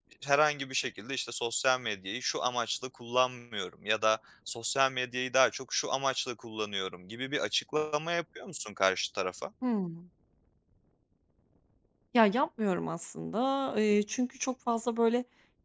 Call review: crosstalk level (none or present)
none